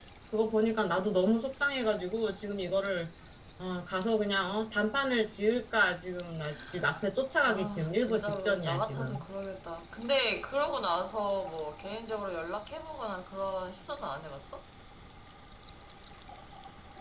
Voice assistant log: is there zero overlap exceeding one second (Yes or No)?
No